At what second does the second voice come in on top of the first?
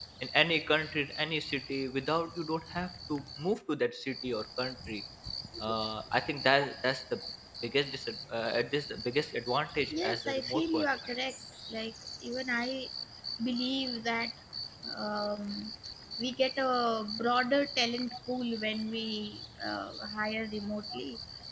9.9 s

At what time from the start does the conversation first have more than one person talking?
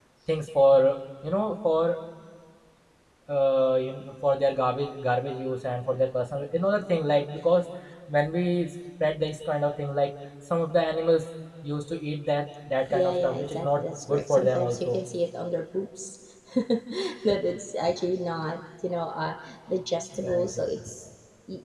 12.9 s

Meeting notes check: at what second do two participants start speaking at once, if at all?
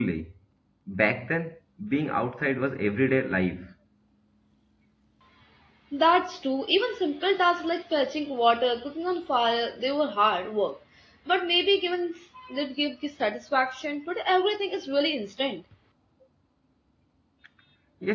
none

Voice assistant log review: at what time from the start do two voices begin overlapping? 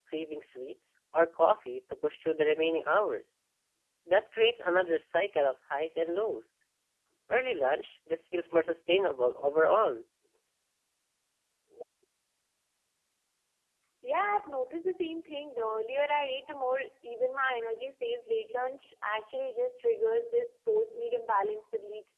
none

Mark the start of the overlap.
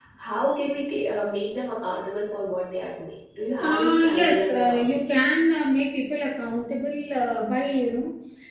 3.5 s

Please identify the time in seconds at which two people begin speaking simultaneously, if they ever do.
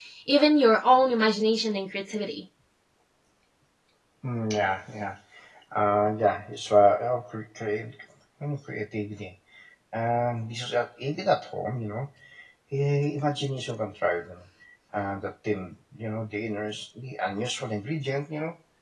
none

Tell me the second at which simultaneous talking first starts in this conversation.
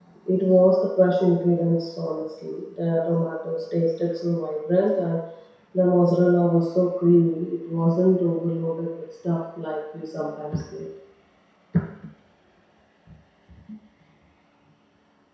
none

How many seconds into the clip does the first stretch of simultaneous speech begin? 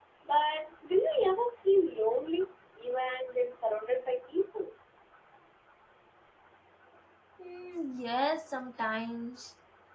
none

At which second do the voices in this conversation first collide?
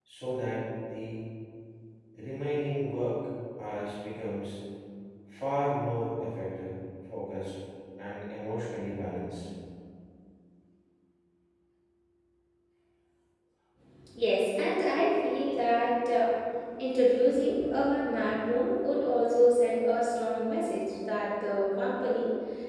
none

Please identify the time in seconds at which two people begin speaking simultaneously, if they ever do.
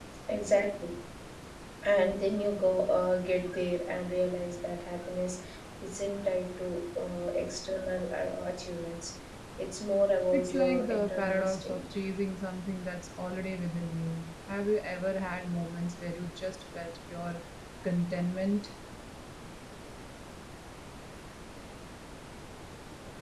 10.3 s

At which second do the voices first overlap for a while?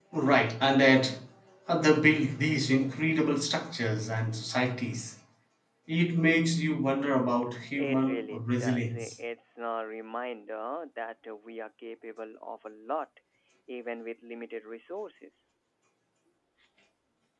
7.8 s

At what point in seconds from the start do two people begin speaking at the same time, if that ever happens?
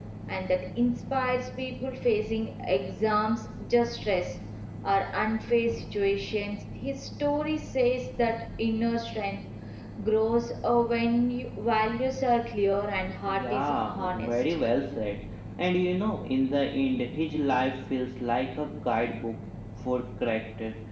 13.2 s

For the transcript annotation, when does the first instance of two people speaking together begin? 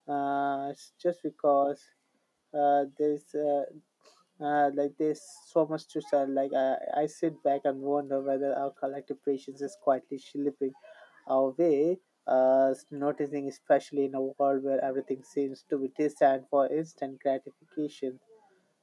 none

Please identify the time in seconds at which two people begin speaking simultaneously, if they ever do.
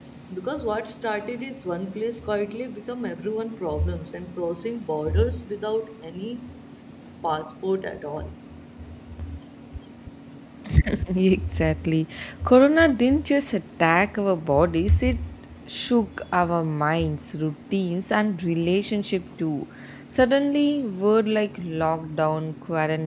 none

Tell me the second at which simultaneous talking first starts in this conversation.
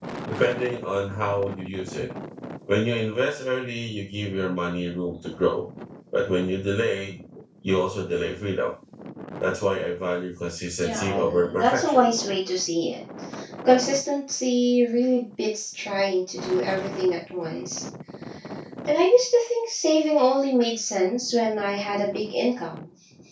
10.8 s

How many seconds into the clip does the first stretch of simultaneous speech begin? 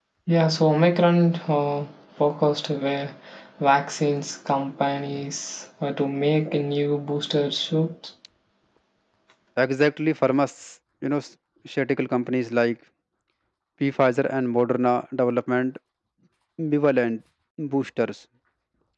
none

